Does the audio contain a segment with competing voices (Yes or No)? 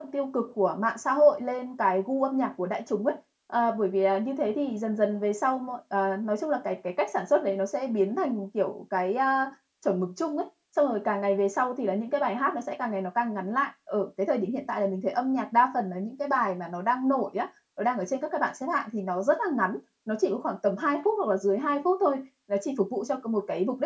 No